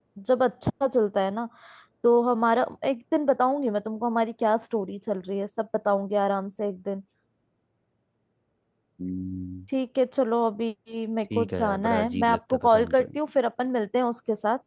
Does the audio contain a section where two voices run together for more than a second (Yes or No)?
Yes